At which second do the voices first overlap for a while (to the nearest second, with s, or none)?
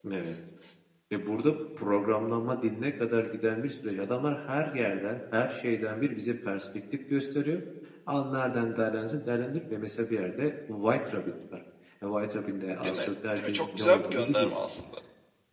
13 s